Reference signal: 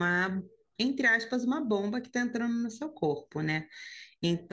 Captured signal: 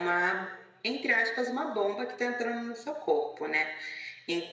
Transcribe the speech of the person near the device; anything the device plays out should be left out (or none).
none